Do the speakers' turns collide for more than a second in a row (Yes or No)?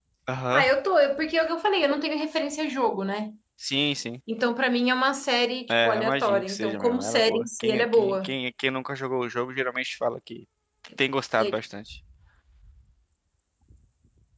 Yes